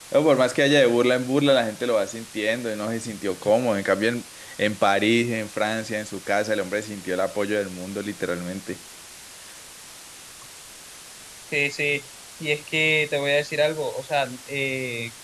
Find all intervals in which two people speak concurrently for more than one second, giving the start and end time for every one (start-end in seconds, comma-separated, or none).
none